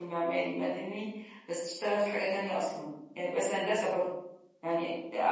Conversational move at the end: listening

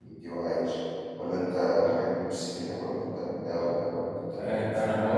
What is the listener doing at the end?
taking over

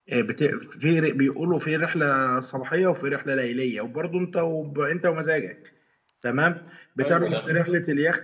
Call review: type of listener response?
listening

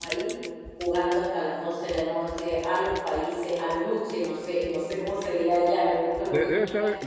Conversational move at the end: taking over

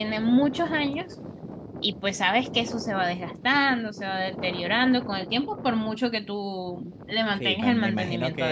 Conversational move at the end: taking over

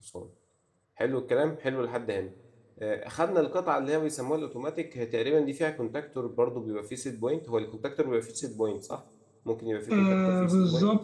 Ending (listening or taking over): taking over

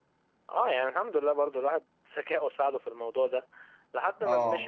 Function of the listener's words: listening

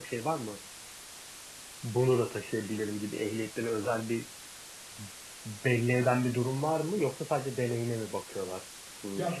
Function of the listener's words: taking over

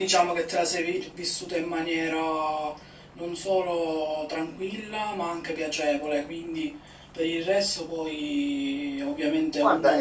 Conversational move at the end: taking over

